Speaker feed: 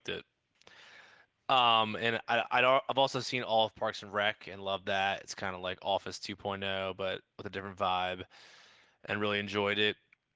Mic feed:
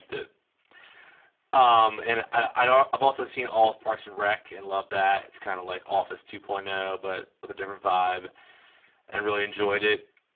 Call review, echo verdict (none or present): present